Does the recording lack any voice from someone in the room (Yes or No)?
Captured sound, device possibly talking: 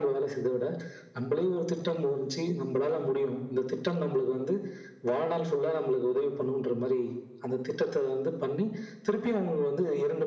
Yes